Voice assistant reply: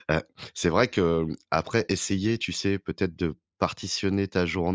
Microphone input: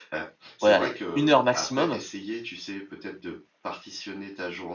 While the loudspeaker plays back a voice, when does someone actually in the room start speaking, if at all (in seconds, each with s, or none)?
0.6 s